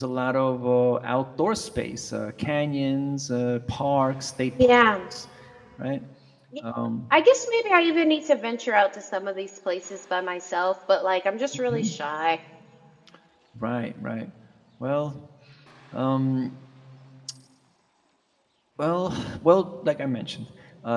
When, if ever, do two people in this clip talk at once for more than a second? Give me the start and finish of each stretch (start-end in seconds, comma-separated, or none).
none